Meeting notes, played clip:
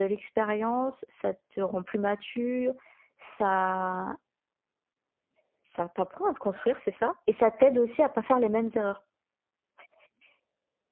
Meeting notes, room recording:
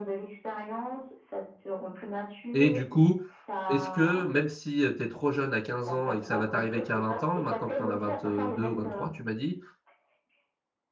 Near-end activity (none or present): present